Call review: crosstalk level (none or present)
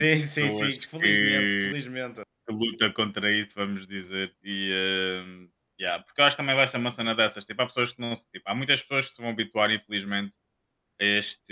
present